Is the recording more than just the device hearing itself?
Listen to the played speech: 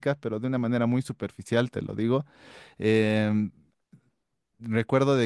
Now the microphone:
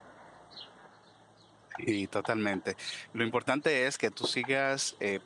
Yes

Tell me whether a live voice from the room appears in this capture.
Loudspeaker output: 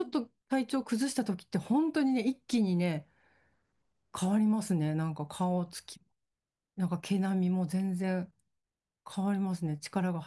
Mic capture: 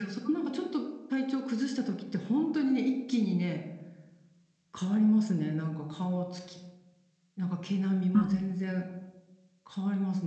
Yes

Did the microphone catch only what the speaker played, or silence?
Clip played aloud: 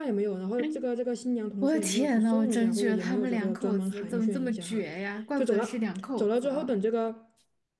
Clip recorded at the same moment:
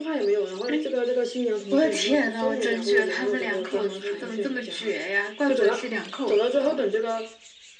Yes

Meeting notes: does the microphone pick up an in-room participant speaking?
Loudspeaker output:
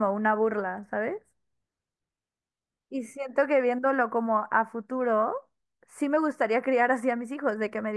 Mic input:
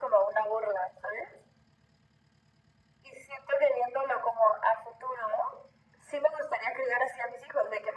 No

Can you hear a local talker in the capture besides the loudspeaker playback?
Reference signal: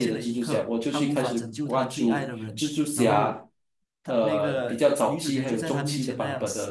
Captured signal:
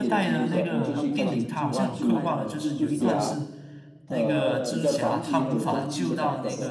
Yes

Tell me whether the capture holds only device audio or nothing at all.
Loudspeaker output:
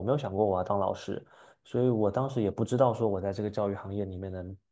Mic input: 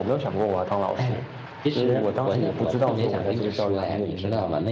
No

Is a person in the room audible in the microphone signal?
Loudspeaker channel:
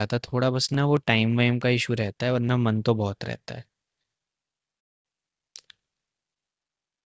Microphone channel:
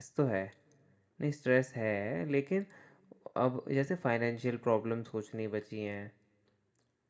Yes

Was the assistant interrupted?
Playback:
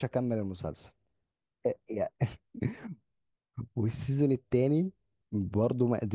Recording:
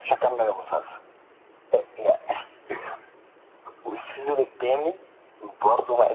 No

